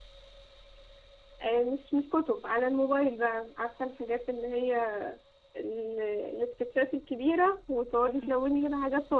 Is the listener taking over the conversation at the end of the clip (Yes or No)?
No